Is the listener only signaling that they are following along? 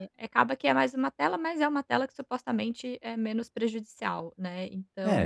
No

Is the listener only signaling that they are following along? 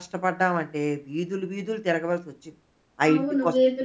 No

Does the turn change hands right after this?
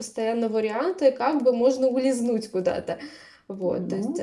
Yes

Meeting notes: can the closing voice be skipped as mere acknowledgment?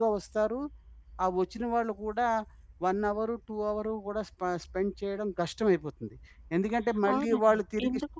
No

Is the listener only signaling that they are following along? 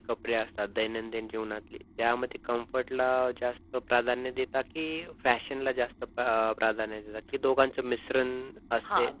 No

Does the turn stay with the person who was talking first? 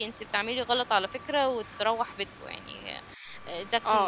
No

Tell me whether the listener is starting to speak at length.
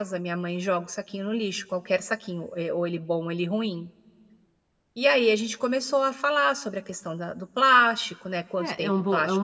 Yes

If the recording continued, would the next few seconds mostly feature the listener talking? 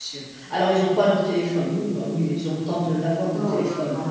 Yes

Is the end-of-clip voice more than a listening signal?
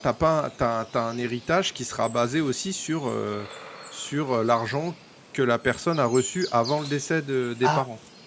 Yes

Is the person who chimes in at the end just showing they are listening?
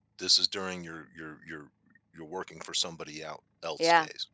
No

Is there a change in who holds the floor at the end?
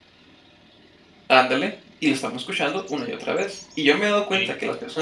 No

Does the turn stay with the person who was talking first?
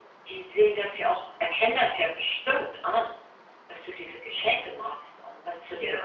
No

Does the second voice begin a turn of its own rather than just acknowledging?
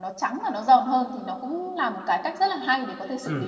Yes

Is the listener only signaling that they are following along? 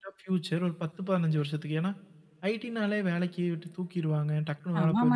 No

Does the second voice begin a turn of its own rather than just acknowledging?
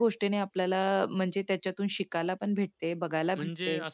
Yes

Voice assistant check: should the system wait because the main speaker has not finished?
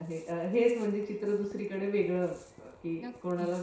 Yes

